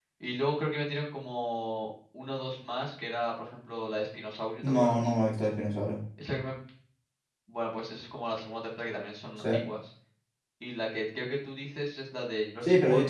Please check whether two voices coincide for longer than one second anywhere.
No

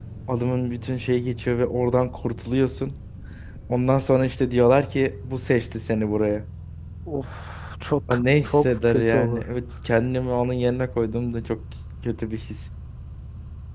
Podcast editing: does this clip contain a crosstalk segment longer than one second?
Yes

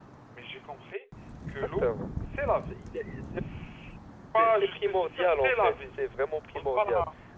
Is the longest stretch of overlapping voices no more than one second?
No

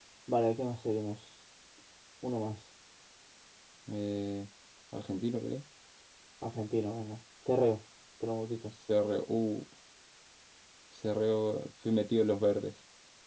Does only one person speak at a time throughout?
Yes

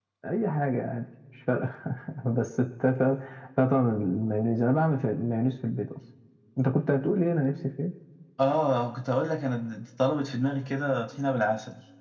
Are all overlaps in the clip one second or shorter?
Yes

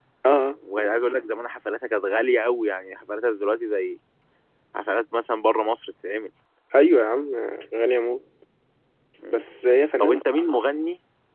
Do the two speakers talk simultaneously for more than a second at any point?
No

